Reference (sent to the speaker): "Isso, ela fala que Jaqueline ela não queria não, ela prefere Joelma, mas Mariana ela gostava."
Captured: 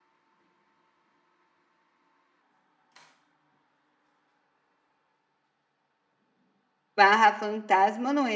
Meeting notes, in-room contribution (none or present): present